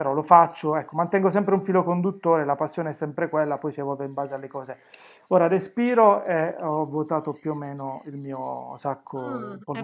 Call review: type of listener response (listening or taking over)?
taking over